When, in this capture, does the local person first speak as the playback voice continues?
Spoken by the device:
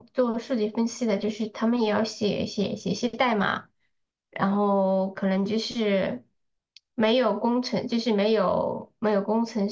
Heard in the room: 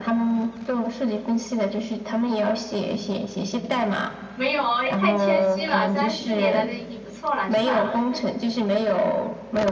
4.3 s

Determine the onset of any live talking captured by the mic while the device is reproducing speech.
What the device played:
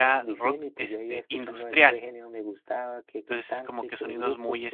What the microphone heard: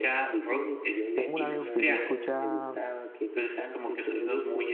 1.1 s

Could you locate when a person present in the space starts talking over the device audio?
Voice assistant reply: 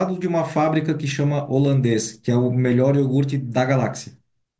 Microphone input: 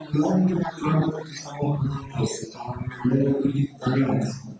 none

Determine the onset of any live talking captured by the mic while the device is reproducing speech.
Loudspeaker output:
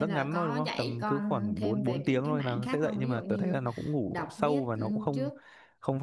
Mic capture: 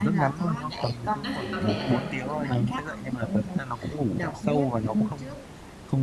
1.2 s

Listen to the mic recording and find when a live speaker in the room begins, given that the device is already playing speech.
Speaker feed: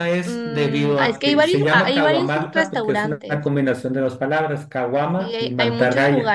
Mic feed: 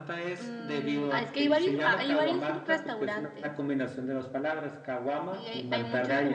none

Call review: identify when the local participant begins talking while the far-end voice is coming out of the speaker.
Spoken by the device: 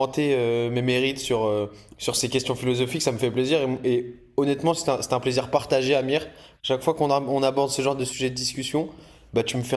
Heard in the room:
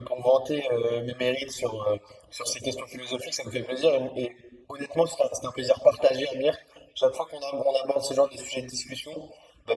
none

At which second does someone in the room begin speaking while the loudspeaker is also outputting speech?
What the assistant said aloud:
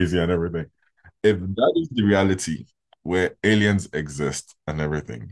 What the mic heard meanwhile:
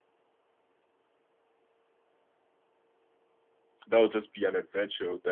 3.9 s

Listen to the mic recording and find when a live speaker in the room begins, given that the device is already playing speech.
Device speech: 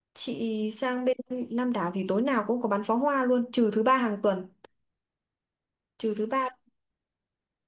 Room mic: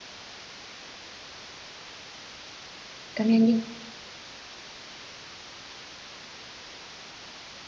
3.1 s

